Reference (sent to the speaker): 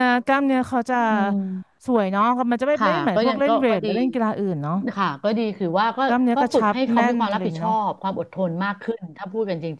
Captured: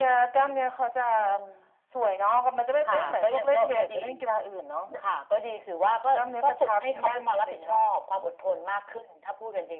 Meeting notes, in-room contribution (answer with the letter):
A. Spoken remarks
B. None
B